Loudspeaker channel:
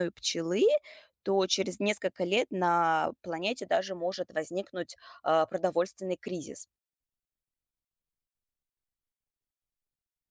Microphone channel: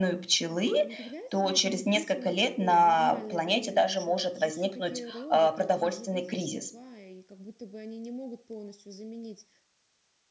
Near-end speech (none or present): present